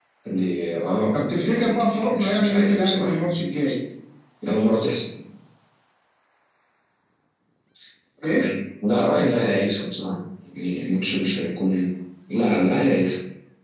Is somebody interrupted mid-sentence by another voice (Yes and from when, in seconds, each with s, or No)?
Yes, from 1.1 s